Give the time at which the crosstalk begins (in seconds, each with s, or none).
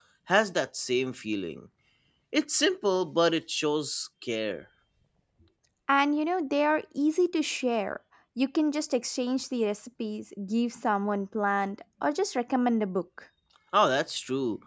none